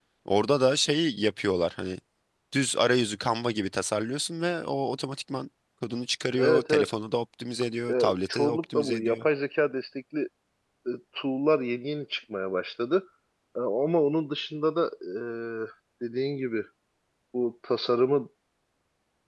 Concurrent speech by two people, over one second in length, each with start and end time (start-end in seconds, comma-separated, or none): 7.9-9.2